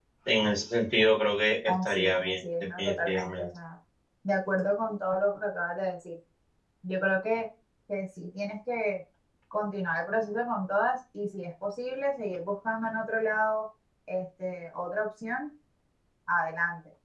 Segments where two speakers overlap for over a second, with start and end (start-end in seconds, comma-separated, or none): 1.7-3.5